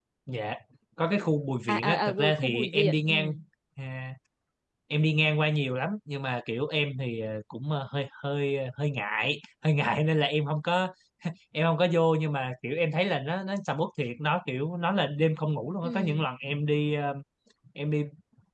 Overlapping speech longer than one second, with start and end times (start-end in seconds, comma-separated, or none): 1.7-3.3